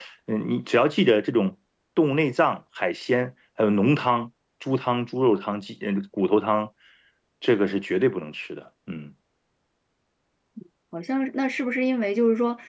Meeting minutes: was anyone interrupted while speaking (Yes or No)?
No